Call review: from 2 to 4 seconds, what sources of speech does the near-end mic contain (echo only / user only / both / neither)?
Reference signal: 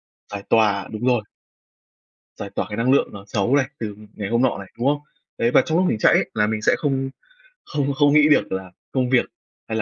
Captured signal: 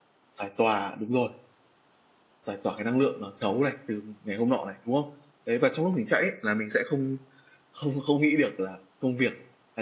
echo only